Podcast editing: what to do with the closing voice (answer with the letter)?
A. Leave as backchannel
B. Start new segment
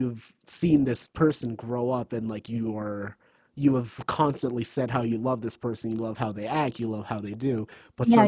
B